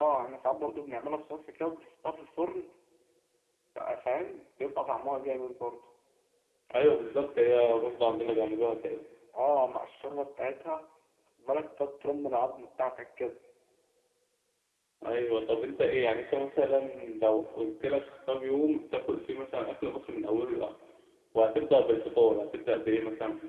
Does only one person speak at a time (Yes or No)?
Yes